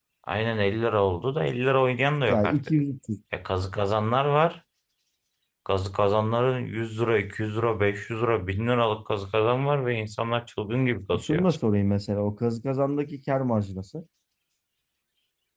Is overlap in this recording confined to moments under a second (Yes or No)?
Yes